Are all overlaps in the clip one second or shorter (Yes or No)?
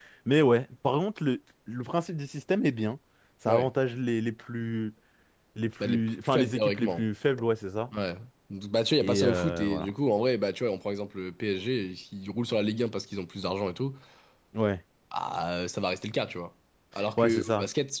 No